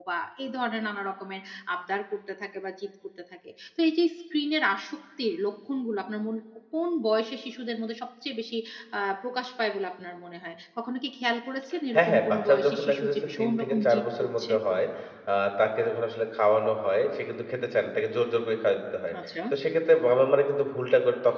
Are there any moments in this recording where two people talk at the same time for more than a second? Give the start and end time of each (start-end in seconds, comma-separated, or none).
11.9-14.5